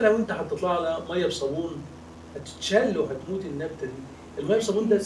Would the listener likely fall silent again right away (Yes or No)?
Yes